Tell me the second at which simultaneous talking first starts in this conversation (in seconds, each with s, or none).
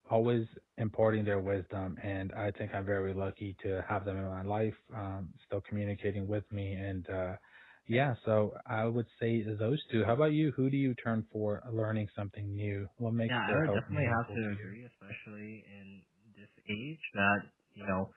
13.3 s